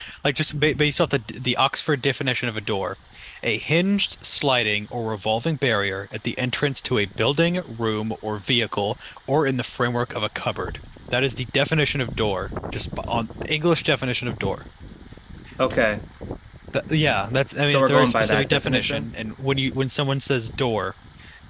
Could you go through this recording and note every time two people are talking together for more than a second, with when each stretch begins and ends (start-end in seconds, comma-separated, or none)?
17.7-19.1